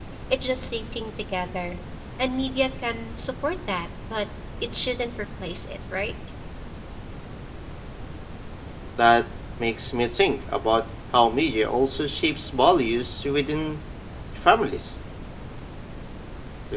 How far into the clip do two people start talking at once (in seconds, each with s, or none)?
none